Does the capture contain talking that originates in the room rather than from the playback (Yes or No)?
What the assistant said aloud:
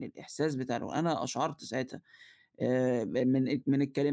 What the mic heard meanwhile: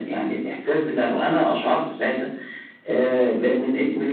No